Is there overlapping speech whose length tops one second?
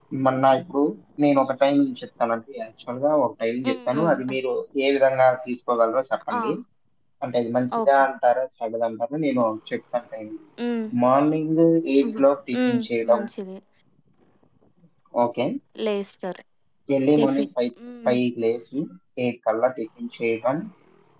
Yes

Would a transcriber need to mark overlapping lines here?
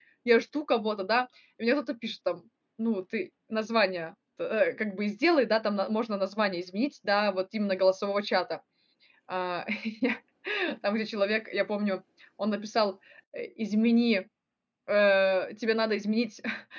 No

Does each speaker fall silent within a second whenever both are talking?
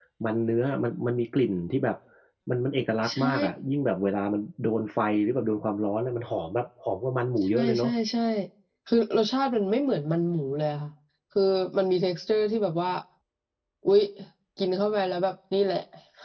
Yes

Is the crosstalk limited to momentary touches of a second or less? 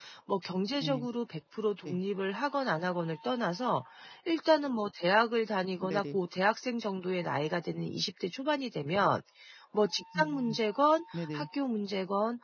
Yes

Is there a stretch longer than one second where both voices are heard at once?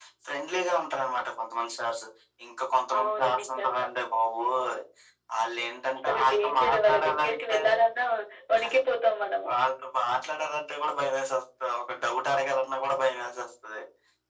Yes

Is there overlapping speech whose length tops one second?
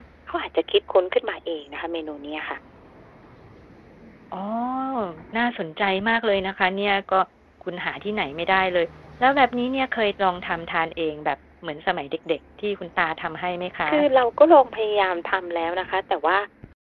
No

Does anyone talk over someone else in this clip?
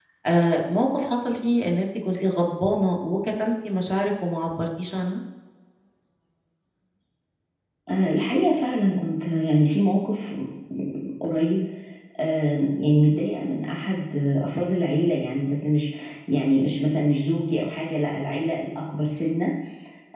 No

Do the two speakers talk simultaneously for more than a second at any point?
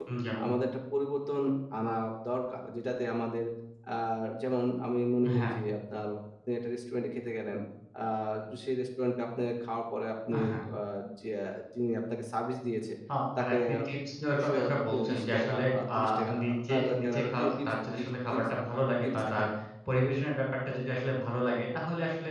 Yes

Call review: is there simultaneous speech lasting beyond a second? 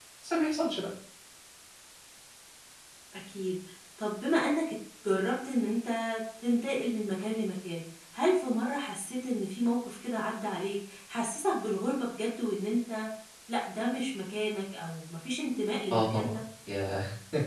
No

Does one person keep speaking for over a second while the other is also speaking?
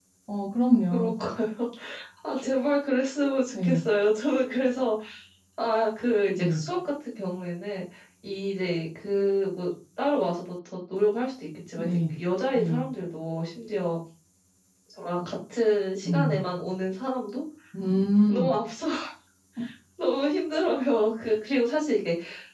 No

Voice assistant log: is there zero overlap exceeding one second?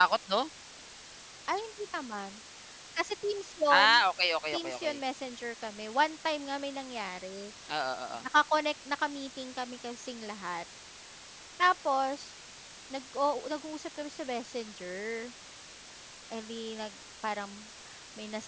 Yes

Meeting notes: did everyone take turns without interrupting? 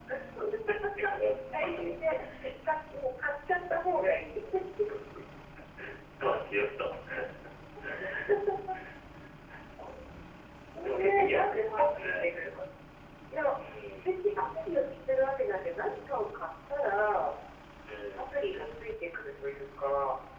No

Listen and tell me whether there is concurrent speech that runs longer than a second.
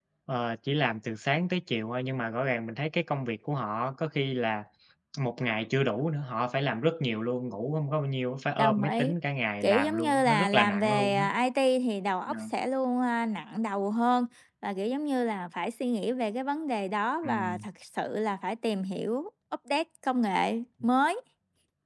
Yes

